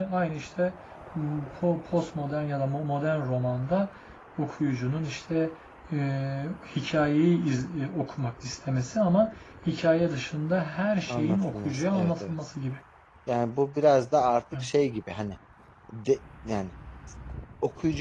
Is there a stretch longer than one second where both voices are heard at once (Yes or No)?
Yes